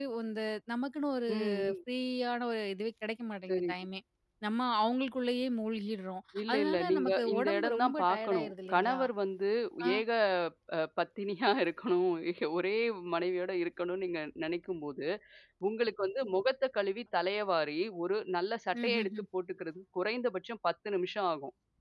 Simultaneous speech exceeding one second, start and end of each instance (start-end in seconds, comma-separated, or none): 6.5-9.0